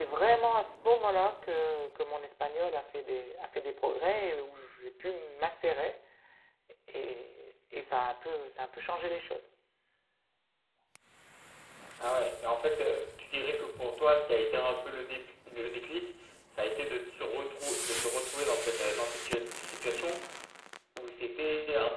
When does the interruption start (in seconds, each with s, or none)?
none